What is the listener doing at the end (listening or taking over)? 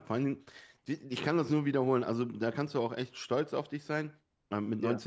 listening